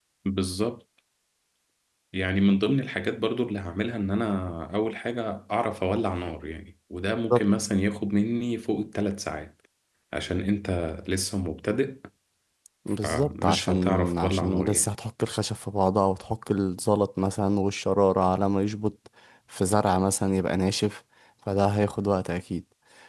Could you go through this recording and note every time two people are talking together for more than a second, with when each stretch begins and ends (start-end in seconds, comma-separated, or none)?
13.0-14.9